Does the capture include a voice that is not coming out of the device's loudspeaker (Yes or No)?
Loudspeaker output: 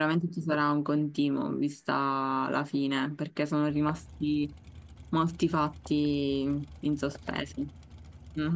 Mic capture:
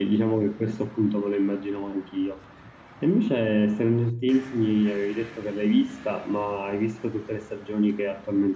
Yes